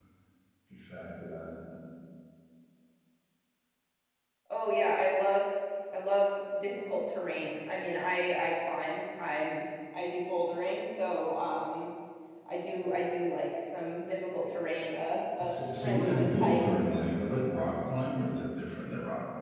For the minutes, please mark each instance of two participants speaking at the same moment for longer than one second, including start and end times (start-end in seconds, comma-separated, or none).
15.4-16.7